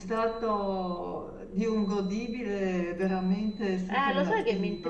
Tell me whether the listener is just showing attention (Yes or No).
No